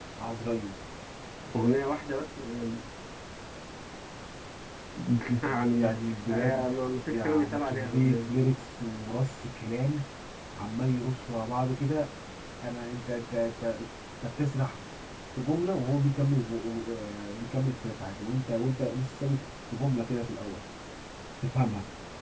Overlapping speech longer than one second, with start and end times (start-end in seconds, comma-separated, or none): 7.1-8.3